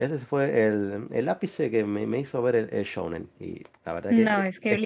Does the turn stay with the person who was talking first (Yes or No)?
No